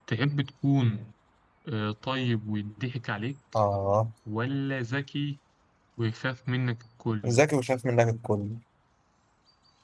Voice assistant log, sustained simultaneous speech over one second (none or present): none